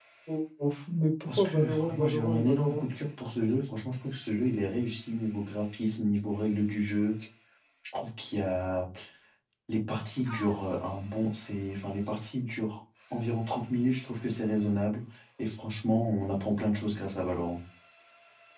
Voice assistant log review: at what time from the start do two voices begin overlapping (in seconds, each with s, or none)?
1.3 s